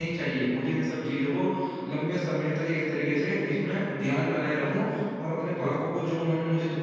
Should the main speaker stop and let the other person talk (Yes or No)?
No